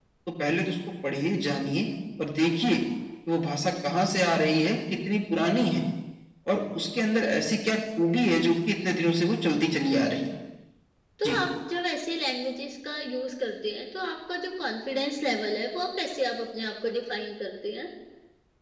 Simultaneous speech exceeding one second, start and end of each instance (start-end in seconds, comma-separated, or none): none